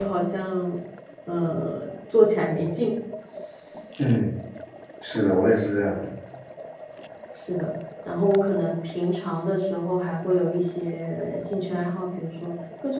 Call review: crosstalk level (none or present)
none